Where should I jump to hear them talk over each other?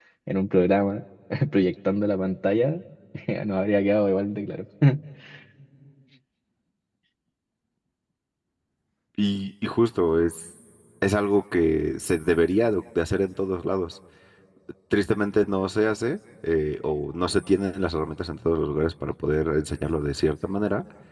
none

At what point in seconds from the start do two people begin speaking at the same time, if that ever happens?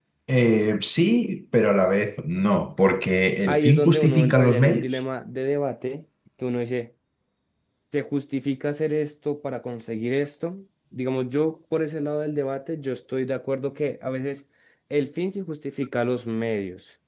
3.5 s

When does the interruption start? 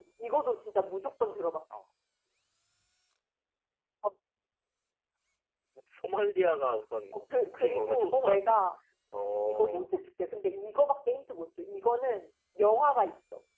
7.1 s

